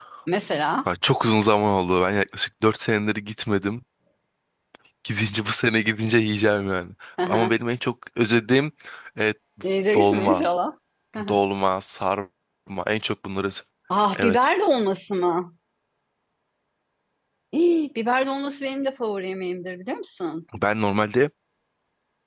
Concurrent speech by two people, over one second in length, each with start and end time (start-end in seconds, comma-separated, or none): none